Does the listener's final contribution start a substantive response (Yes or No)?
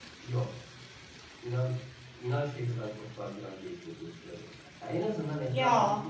No